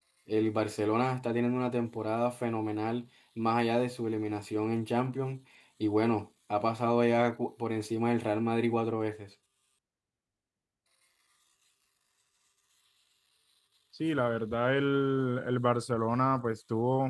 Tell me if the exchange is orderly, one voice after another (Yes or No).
Yes